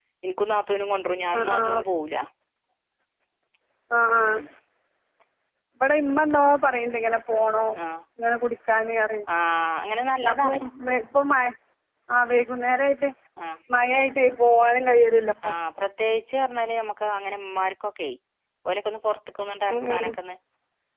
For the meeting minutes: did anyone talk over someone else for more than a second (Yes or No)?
No